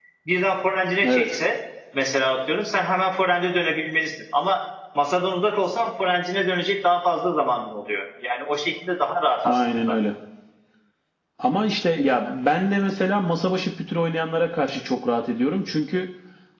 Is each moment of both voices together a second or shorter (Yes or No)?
Yes